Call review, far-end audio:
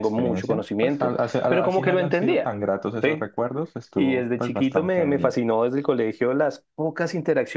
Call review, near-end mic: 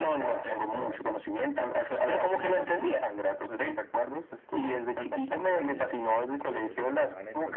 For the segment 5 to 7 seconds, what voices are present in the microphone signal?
both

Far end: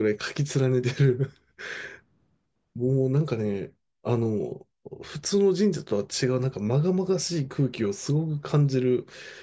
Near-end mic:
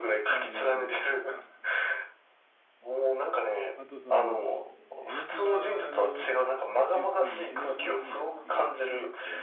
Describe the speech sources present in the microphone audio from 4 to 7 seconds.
both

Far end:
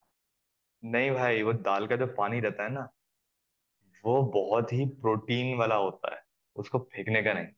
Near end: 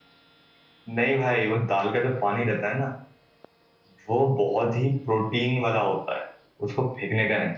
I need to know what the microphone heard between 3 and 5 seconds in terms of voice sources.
echo only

